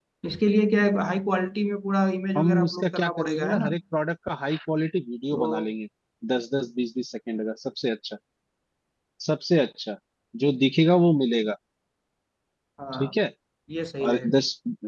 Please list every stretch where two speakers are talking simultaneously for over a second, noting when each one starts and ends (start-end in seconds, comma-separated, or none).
2.4-3.8